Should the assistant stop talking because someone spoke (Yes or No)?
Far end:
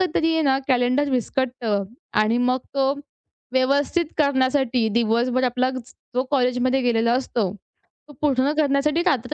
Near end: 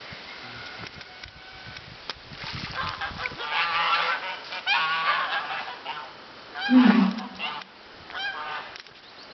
Yes